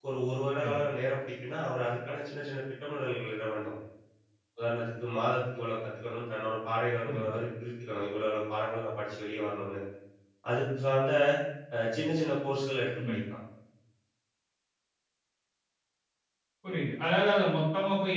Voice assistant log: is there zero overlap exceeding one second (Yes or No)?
Yes